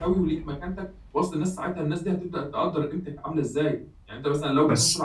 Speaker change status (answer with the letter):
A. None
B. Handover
A